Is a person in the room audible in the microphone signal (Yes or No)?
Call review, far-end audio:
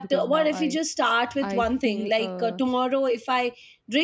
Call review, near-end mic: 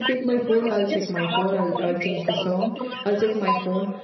Yes